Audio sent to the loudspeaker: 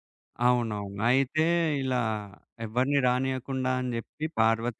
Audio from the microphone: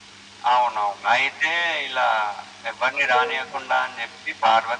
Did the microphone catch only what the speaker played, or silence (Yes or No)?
No